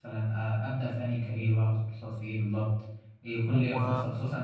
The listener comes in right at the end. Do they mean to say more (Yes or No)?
No